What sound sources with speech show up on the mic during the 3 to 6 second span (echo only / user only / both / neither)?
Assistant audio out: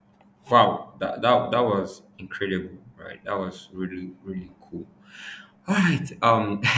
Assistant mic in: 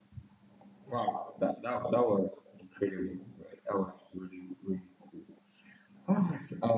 echo only